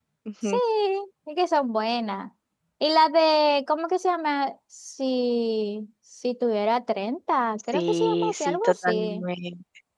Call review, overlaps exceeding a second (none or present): present